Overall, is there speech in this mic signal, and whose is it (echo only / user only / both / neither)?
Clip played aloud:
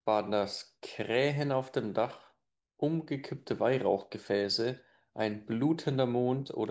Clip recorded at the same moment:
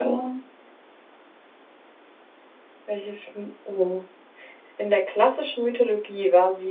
user only